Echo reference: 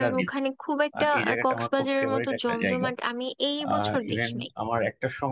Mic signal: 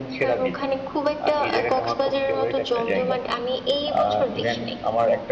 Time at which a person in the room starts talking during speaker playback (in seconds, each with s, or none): none